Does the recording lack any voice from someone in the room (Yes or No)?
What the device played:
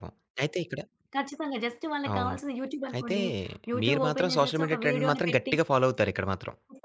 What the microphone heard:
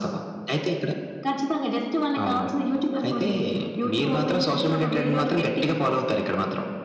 Yes